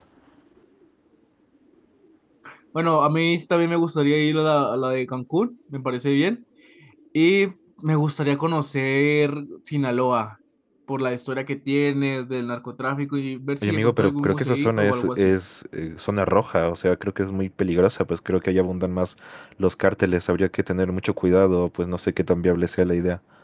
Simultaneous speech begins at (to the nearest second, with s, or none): 14 s